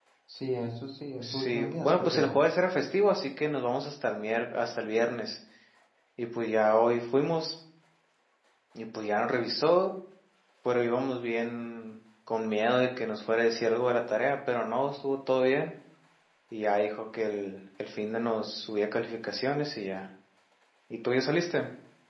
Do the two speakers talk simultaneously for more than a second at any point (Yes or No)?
Yes